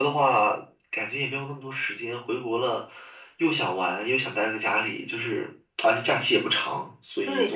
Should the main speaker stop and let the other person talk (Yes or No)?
Yes